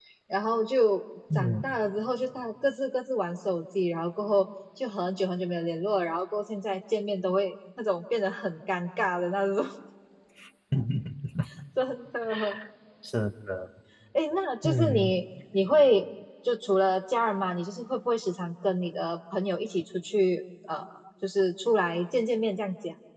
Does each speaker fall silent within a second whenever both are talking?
Yes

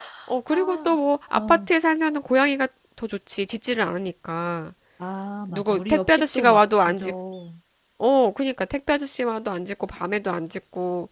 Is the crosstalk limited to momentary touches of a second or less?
No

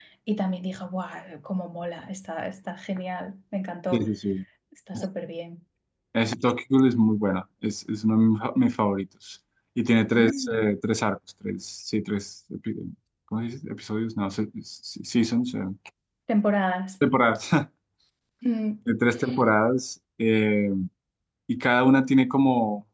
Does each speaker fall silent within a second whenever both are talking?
Yes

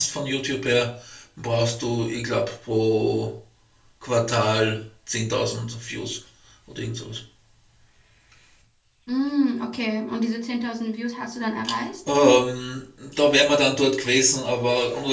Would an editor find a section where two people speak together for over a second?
No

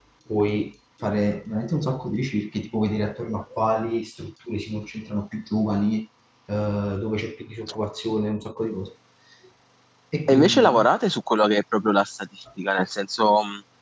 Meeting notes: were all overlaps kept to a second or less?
Yes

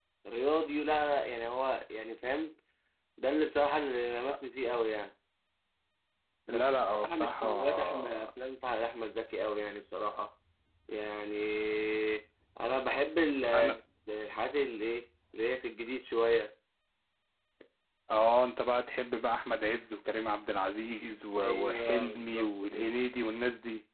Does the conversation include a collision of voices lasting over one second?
Yes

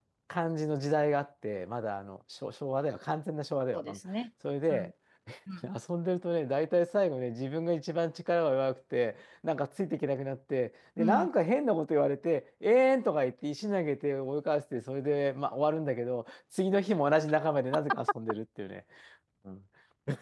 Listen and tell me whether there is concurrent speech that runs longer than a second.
No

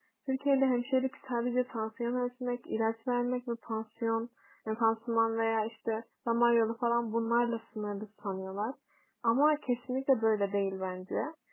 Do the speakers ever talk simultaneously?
No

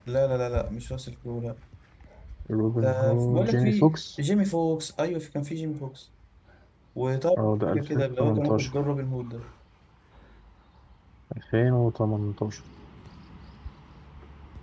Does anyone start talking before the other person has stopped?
Yes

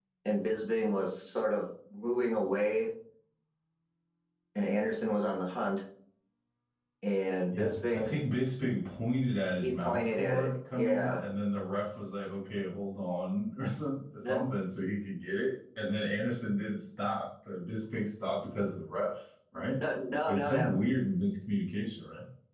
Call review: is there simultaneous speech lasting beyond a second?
Yes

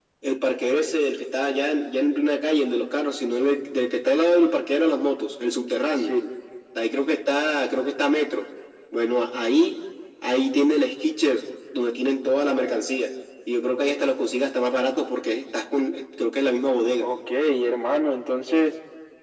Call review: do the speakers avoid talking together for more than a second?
Yes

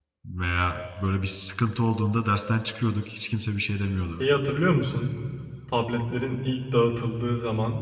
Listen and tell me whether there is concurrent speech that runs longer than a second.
No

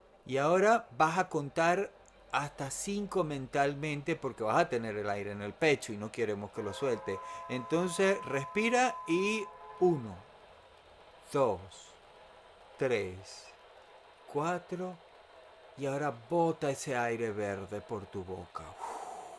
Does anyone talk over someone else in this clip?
No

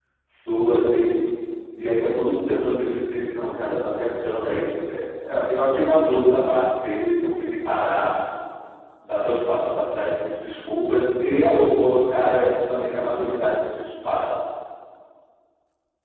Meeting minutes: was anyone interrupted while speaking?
No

